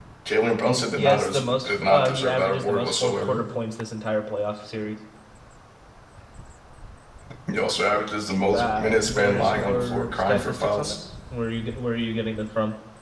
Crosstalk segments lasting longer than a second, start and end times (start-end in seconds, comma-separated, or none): 1.0-3.4, 8.5-10.9